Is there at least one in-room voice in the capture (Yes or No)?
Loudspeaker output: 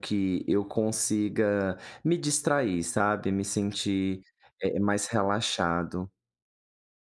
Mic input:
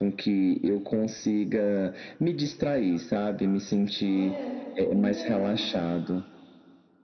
Yes